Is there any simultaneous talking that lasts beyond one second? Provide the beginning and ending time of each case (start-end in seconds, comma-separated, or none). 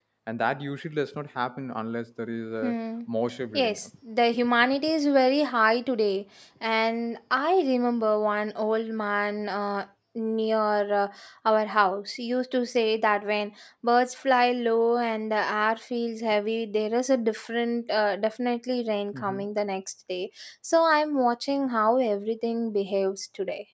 none